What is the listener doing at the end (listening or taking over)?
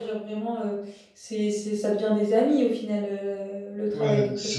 taking over